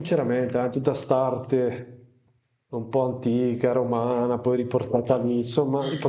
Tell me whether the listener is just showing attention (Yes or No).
Yes